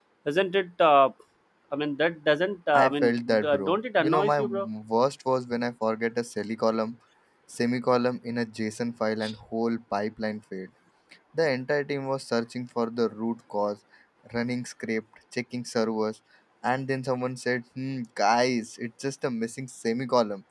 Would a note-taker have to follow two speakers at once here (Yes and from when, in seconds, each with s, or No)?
Yes, from 2.7 s